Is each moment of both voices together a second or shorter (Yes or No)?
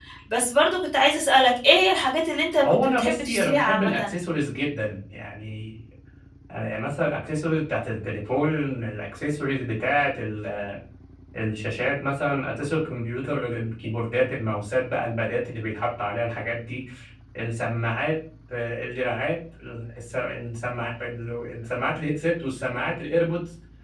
No